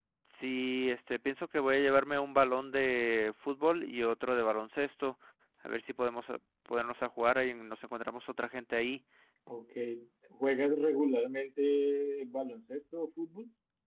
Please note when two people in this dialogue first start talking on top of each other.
none

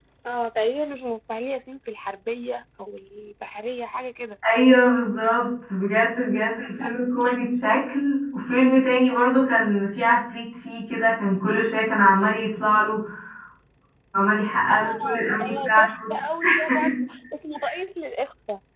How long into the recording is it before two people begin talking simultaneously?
14.7 s

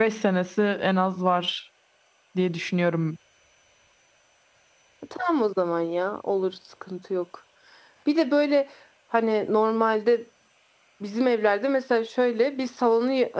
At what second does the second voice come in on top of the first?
none

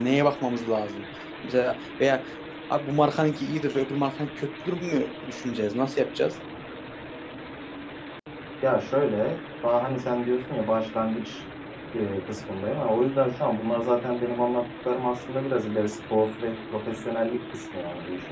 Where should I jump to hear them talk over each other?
none

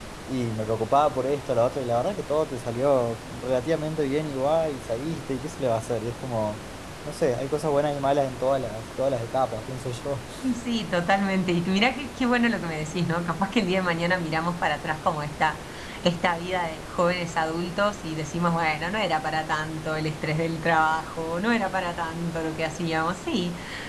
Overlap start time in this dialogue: none

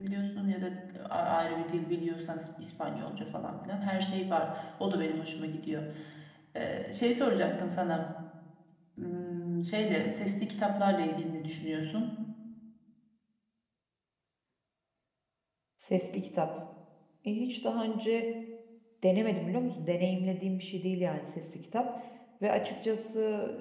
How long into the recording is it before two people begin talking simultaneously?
none

